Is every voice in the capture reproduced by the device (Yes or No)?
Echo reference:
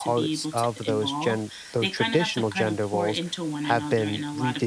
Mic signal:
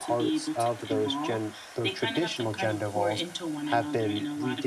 Yes